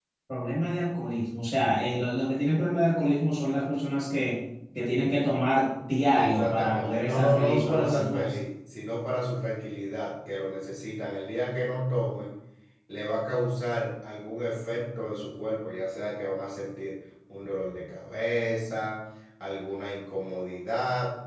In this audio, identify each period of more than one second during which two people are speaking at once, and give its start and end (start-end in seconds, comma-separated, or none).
6.2-8.3